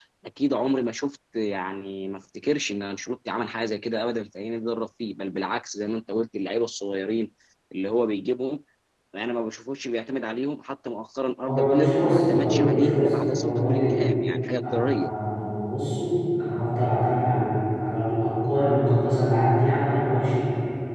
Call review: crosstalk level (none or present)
present